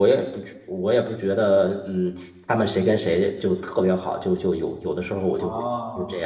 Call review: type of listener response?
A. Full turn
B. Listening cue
A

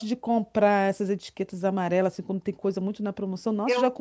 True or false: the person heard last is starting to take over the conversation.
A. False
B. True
A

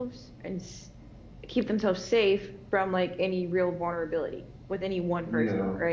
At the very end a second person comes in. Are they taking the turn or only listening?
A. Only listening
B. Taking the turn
B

